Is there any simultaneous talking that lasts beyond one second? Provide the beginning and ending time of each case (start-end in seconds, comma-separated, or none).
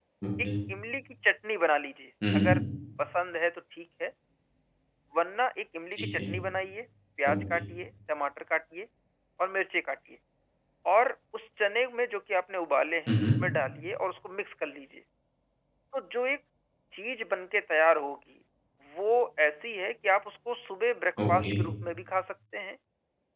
none